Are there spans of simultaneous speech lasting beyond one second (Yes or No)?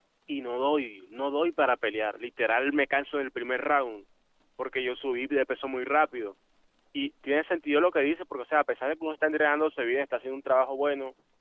No